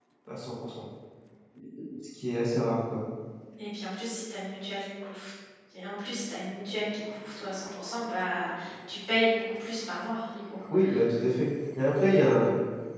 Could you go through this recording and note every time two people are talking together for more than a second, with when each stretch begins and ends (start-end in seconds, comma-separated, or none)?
none